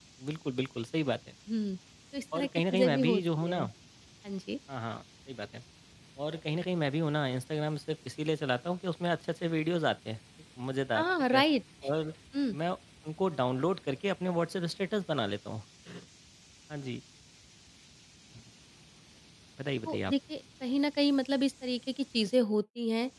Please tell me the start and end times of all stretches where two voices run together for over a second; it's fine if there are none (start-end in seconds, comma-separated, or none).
2.4-3.6